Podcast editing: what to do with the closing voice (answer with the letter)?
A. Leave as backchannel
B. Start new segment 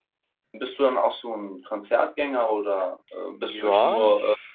B